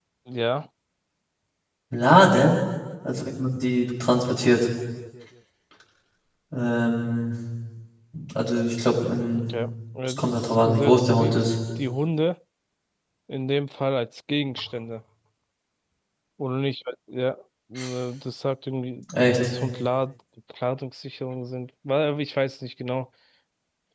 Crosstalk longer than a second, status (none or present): present